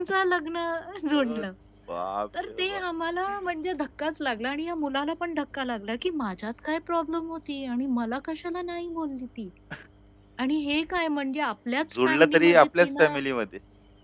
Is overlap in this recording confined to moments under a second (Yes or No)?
No